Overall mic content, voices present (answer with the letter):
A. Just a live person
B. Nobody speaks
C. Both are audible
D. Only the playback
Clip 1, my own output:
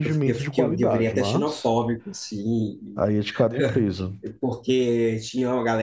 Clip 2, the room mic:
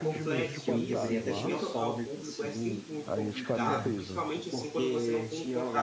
C